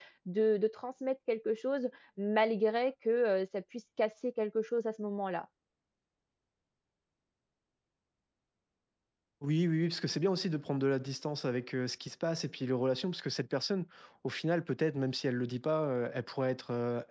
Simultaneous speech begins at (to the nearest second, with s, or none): none